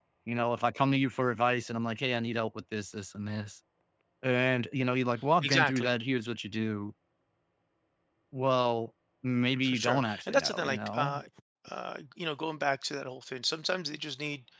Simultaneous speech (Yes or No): Yes